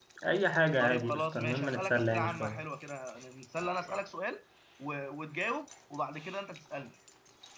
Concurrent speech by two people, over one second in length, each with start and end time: 0.8-2.6

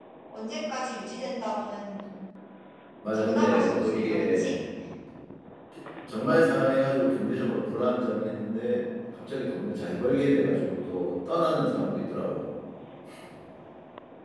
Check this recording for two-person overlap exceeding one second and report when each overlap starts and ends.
3.1-4.5

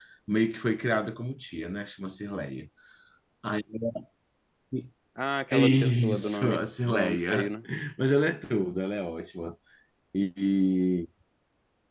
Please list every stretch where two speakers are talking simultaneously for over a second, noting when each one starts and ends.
5.5-7.5

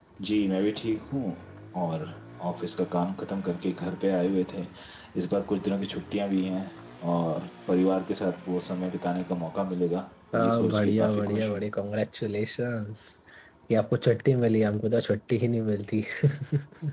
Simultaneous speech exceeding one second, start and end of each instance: 10.3-11.6

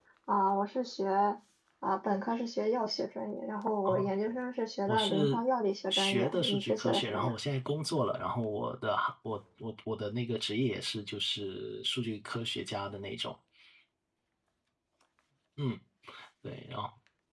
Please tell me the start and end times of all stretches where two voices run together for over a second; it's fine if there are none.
5.9-7.3

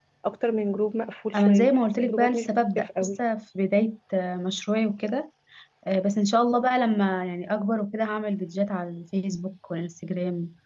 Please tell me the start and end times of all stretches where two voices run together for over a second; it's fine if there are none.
1.4-3.1

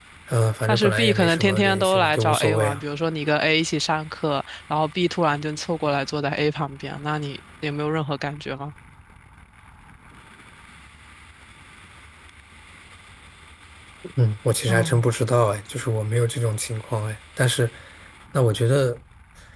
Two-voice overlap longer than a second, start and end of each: 0.7-2.8

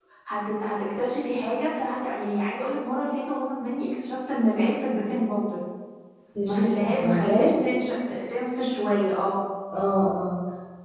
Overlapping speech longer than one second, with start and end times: 6.5-7.7

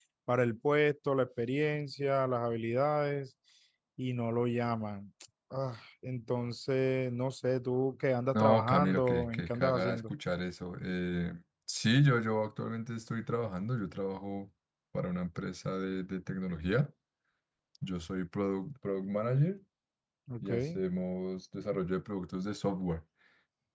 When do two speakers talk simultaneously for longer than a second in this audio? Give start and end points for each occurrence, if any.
8.3-10.1

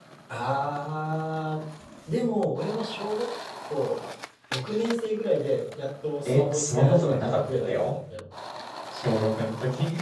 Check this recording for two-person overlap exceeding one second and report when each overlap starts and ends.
6.2-7.9

